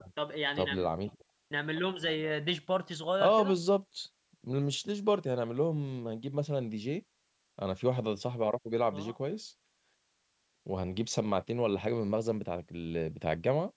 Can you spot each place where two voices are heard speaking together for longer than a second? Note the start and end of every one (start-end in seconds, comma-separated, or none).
none